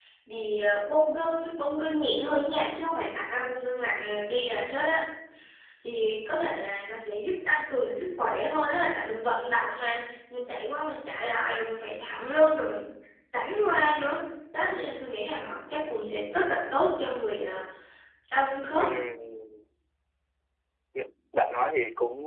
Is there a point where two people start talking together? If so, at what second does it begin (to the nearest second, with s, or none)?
none